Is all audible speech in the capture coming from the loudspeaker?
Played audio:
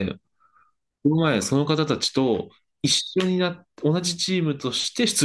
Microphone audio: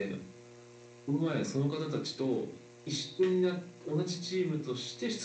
Yes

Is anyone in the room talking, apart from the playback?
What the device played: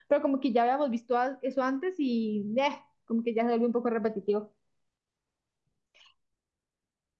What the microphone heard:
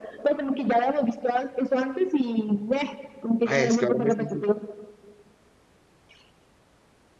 Yes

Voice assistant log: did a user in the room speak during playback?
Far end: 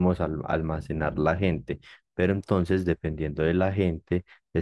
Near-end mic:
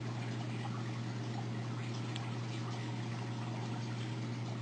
No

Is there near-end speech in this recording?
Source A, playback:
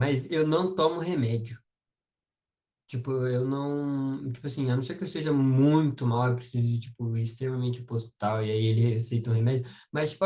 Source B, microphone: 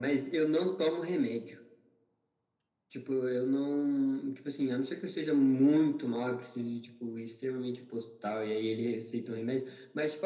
No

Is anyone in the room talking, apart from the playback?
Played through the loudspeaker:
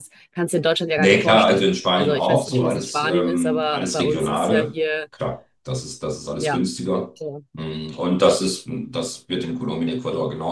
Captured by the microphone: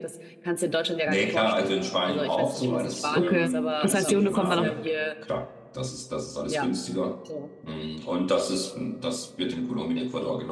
Yes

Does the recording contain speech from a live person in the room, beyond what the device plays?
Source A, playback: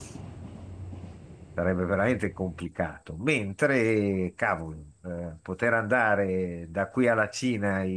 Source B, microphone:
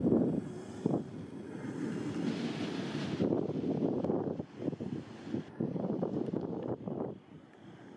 No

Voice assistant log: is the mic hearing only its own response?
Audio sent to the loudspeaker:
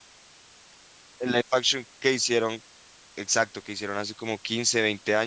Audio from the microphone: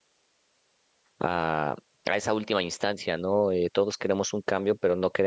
No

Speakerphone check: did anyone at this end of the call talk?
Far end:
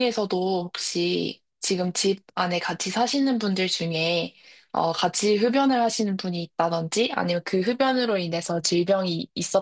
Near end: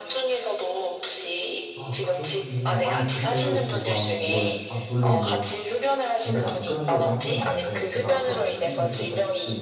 Yes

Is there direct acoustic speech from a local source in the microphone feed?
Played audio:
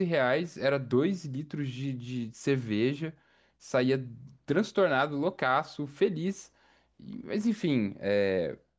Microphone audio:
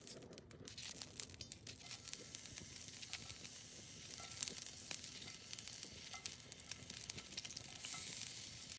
No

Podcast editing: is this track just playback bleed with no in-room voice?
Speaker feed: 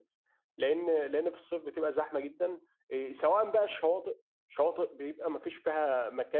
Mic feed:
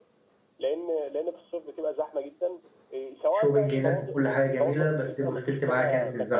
No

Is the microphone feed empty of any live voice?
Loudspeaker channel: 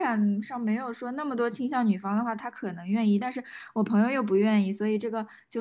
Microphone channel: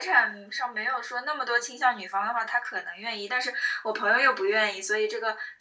Yes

